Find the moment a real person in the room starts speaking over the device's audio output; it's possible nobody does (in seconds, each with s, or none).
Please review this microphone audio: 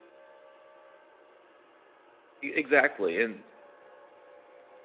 2.4 s